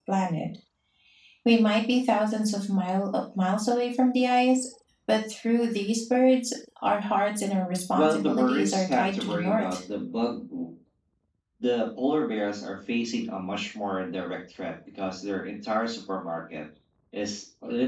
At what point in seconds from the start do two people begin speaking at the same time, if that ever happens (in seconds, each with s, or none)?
7.9 s